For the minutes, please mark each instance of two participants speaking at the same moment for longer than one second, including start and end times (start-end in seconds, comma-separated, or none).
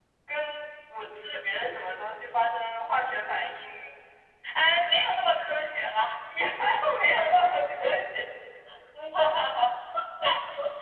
none